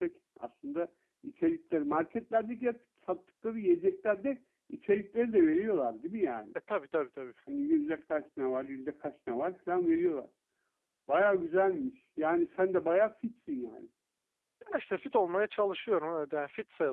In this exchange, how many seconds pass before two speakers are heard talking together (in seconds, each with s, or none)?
none